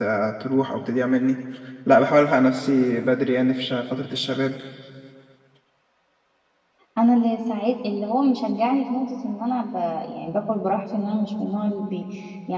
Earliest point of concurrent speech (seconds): none

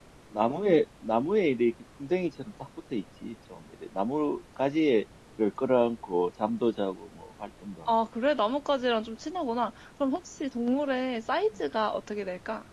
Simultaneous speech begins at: none

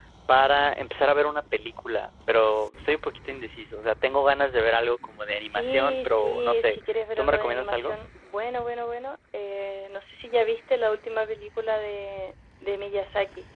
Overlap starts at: 5.5 s

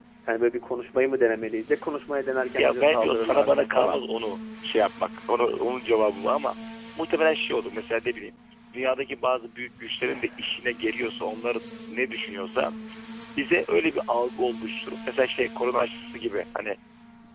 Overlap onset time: 2.6 s

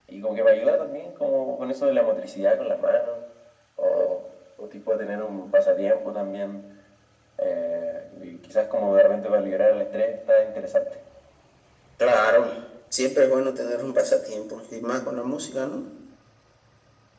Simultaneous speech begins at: none

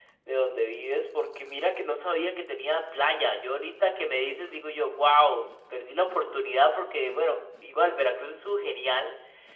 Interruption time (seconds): none

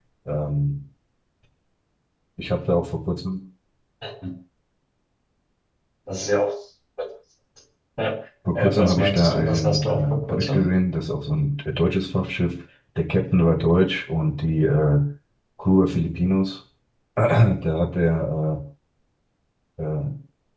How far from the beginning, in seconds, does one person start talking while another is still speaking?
8.6 s

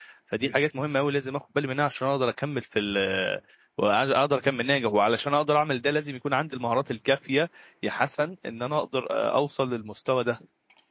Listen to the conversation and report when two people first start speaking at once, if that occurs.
none

